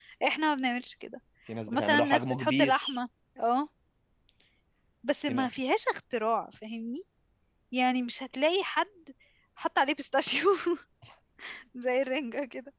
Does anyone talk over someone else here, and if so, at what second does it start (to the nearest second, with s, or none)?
2 s